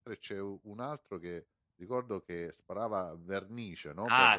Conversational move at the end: taking over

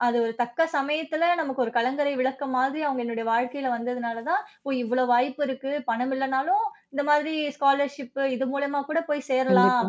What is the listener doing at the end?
listening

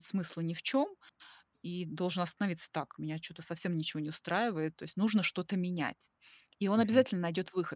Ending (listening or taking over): listening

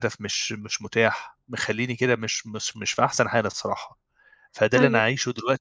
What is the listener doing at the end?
listening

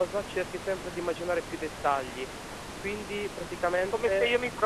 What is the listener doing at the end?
taking over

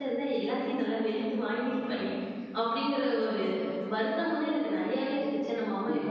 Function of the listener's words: taking over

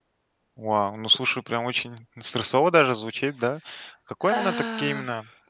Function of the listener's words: listening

